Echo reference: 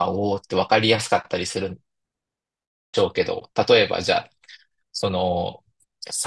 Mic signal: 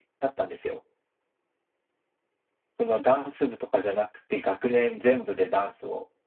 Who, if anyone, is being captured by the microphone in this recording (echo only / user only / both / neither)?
user only